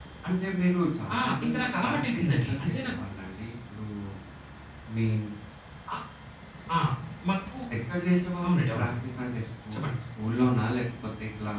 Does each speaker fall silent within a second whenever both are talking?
No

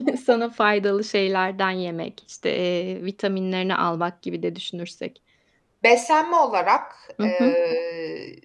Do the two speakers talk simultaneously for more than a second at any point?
No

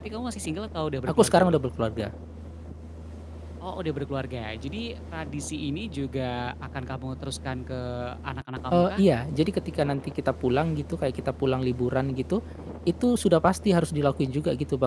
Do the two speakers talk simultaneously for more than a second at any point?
No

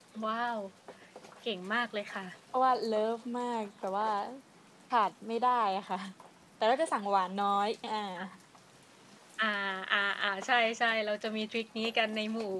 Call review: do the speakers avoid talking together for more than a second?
Yes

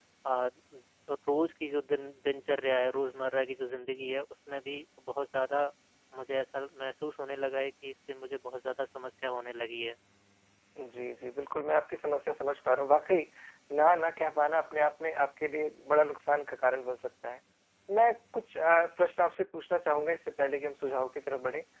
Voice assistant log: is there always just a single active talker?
Yes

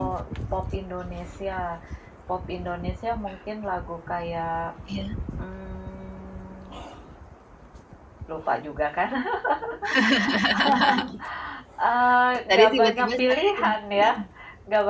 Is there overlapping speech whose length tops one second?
Yes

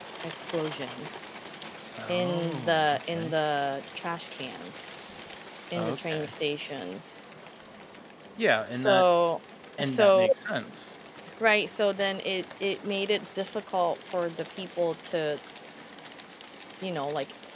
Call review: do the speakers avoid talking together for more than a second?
No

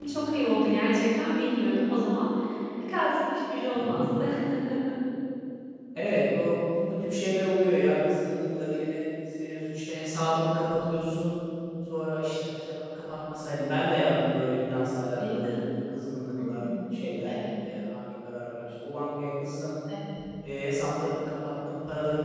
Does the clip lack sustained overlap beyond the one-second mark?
Yes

